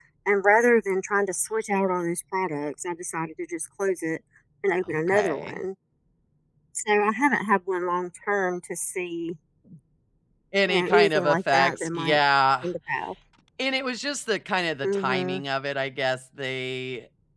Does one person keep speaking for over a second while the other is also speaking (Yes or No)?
Yes